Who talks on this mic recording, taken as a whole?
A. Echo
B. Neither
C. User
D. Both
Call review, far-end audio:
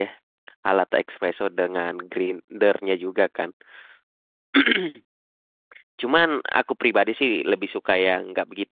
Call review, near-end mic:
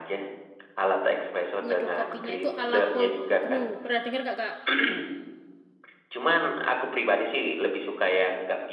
D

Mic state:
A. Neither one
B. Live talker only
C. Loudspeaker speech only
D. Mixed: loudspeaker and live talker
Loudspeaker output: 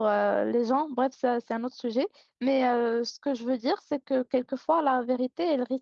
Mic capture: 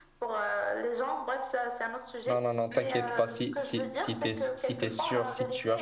D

